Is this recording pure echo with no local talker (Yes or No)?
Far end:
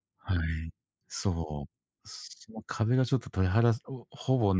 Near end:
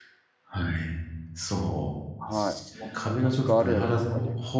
No